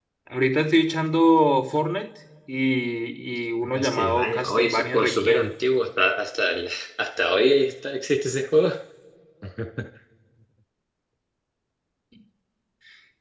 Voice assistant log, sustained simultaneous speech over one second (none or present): present